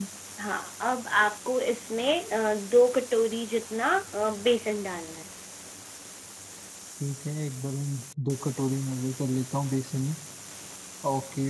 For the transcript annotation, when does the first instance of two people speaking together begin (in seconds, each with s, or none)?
none